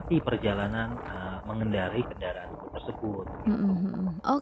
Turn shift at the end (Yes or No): Yes